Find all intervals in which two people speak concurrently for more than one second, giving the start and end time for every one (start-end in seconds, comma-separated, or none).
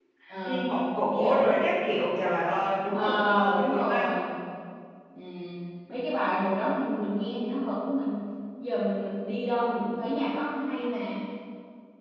2.9-4.1